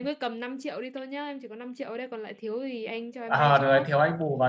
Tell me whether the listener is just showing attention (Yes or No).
No